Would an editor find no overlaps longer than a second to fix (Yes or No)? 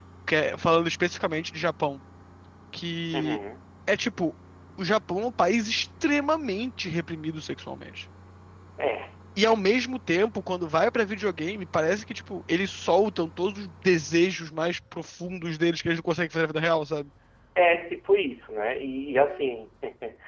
Yes